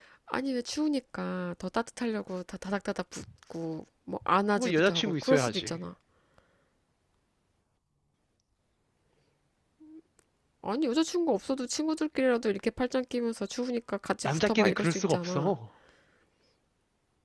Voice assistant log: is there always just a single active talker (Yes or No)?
No